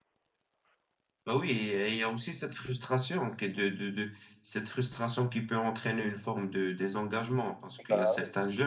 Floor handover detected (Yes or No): No